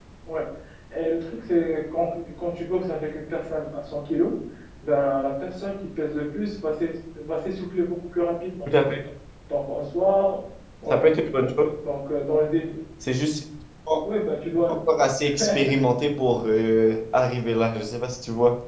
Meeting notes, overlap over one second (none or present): none